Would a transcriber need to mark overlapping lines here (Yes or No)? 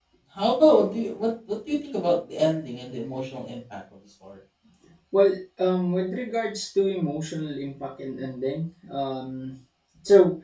No